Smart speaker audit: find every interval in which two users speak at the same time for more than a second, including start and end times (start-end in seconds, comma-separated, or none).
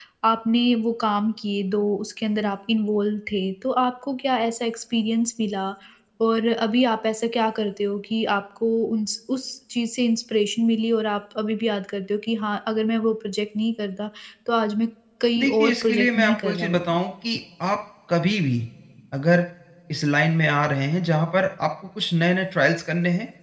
15.4-17.0